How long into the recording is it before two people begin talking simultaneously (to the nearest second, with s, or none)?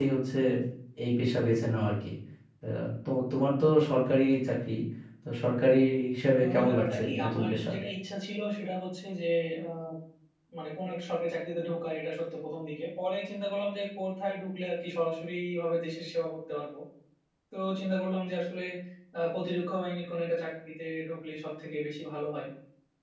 6 s